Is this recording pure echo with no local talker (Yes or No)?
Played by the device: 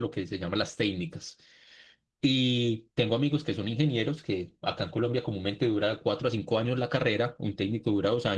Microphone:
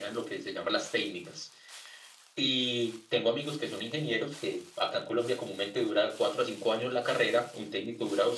Yes